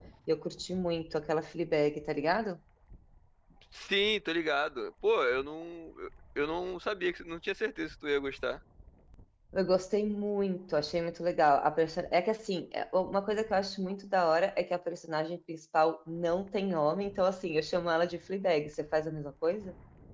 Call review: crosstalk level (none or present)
none